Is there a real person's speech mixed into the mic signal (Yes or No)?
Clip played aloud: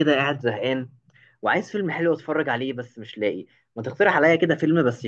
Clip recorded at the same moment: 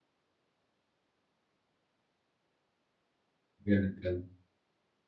Yes